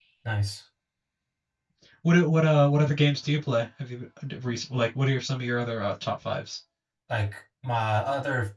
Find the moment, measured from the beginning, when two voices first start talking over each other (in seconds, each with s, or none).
none